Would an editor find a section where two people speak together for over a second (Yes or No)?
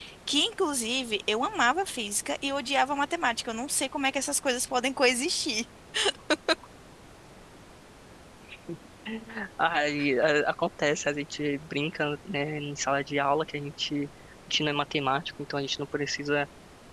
No